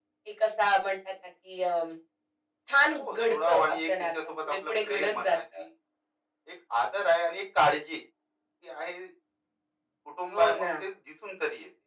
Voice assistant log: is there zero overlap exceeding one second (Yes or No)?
No